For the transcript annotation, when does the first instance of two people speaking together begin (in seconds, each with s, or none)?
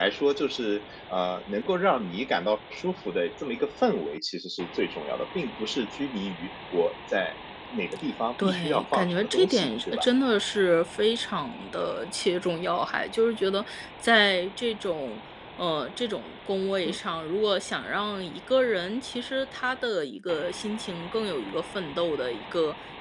8.4 s